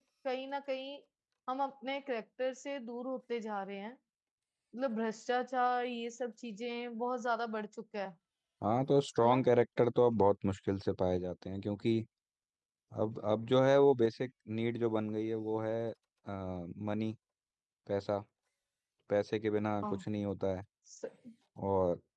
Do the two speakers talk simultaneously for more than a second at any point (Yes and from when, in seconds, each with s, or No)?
No